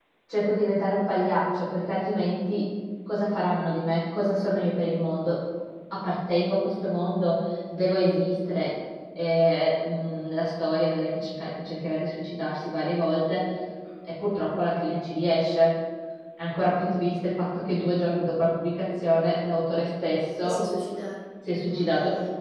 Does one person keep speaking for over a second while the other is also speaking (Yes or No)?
No